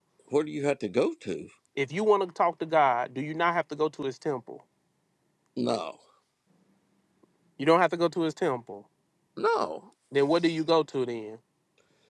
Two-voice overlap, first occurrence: none

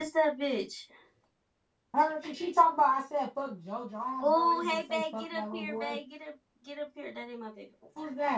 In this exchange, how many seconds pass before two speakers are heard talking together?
4.2 s

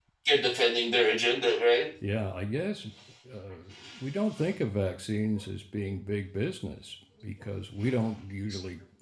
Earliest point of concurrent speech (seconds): none

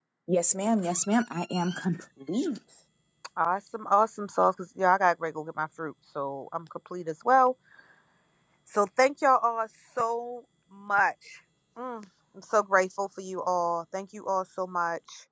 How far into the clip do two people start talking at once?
none

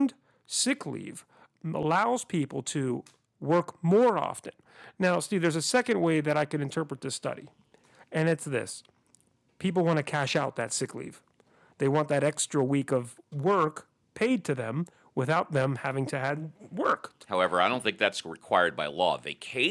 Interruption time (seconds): none

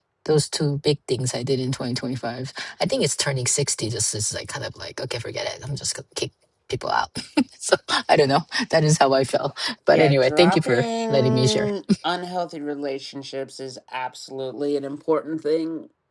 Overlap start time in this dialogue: 9.9 s

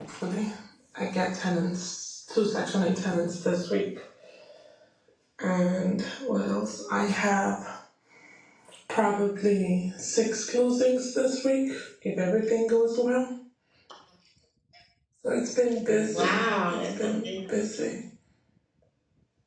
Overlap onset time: 15.9 s

